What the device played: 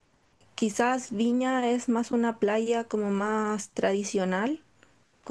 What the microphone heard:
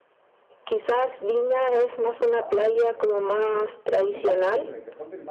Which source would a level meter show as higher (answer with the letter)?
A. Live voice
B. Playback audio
B